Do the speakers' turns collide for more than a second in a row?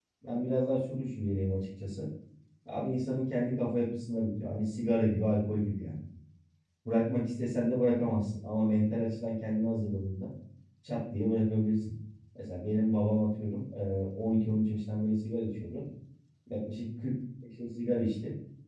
No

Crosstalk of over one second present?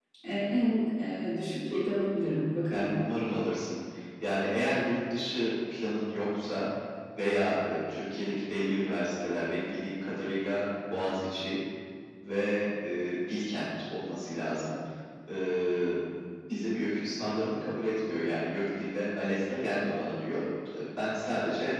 No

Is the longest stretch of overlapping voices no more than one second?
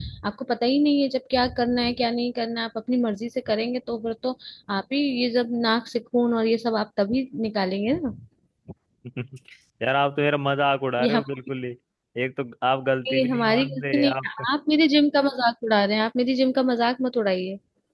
No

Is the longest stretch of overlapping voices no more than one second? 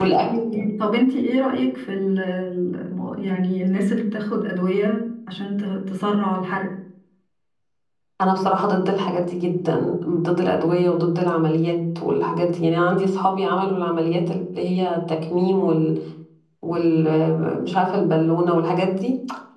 Yes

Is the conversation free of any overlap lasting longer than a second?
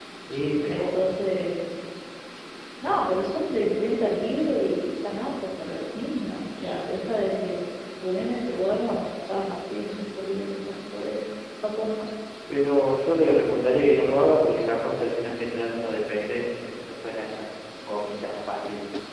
Yes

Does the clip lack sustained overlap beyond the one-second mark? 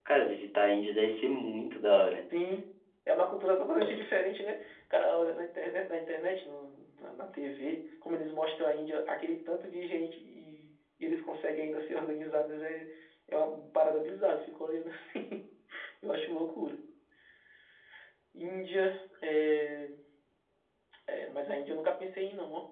Yes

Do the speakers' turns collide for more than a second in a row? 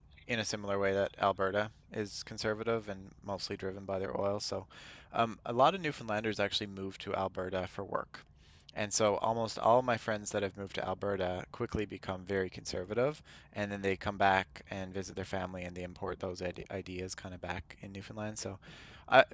No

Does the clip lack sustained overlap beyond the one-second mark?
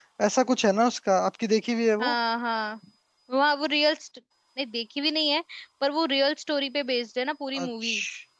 Yes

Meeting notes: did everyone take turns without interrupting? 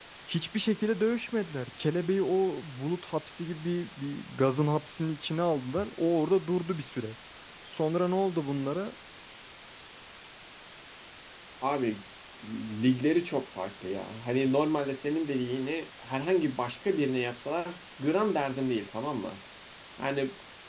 Yes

